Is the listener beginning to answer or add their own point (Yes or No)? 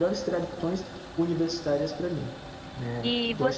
Yes